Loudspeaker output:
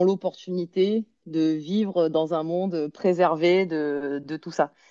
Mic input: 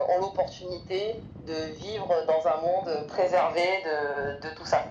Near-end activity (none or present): none